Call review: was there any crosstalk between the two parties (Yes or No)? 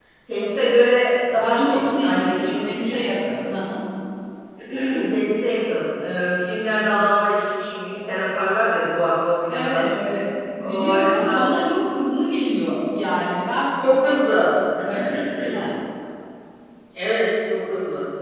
Yes